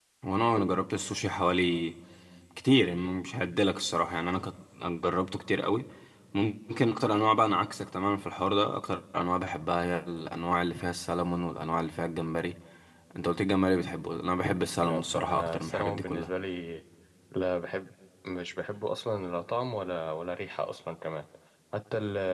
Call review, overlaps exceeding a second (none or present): present